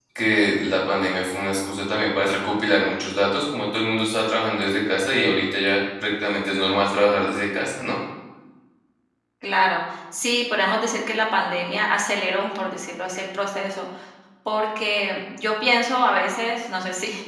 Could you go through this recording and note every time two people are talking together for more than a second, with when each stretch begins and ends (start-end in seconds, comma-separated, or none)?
none